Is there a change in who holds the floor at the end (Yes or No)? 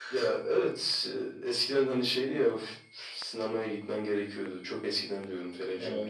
No